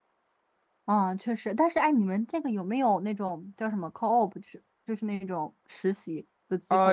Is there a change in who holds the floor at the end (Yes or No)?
Yes